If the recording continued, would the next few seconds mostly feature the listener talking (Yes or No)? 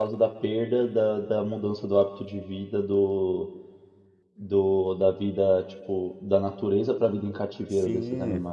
Yes